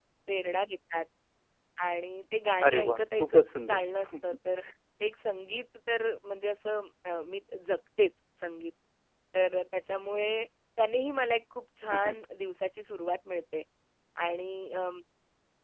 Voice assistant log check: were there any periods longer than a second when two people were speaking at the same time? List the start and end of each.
2.6-4.1

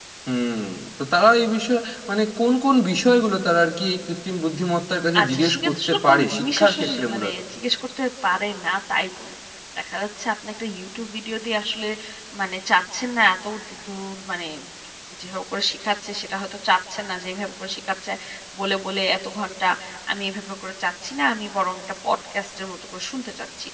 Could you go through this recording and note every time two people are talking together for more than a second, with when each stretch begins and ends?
5.2-7.3

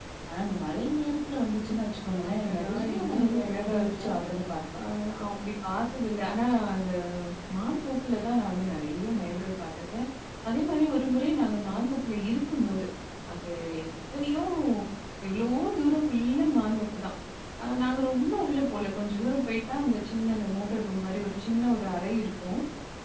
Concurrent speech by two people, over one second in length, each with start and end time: 2.3-4.1

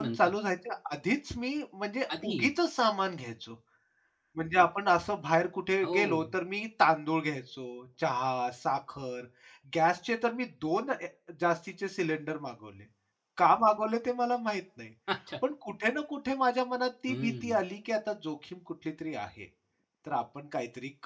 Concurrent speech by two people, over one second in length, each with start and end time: none

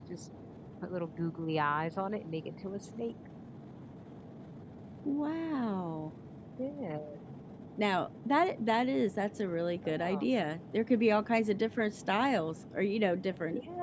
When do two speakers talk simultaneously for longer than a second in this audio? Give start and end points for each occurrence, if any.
none

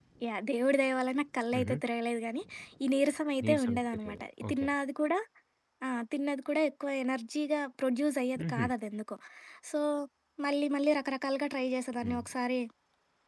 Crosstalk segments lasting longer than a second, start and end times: 3.4-4.7

